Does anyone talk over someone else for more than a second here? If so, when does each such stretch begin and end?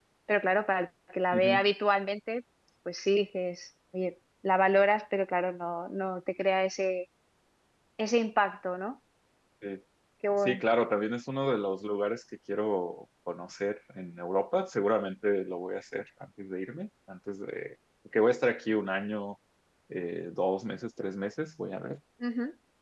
none

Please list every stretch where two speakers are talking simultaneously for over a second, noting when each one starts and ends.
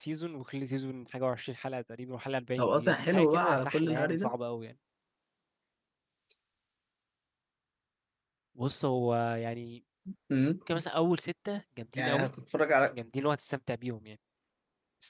2.6-4.3

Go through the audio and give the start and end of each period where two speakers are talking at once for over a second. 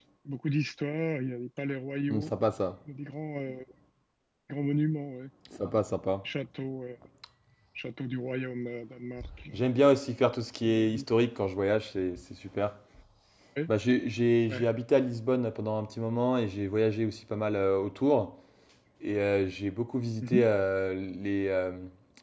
none

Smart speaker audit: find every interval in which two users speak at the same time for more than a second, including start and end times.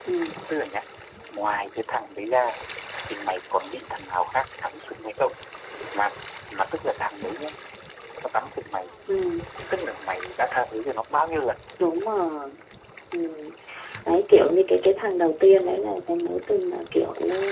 none

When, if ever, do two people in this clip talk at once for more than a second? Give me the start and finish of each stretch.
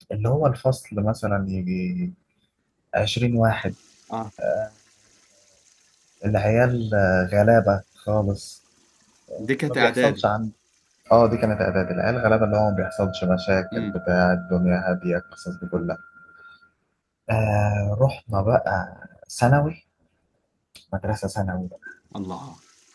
none

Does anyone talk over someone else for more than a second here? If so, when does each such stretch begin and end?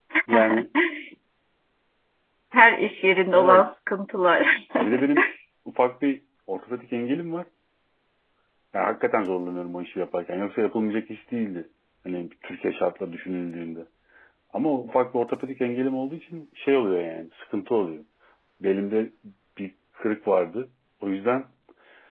none

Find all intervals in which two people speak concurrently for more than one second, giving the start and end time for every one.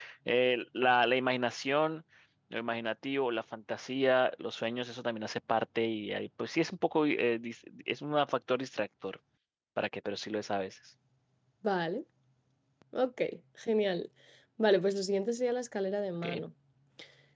none

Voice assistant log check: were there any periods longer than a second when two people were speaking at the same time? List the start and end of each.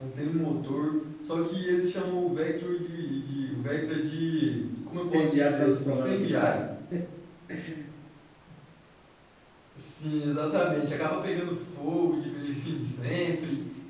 5.0-6.6

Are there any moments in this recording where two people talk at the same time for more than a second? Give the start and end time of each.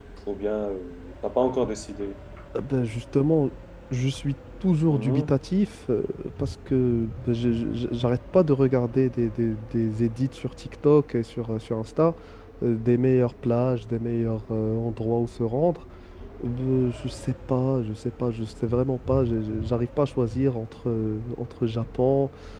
none

